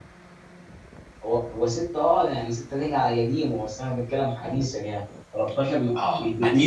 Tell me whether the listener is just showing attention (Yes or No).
No